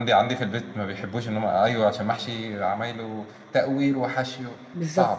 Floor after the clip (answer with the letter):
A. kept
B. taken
B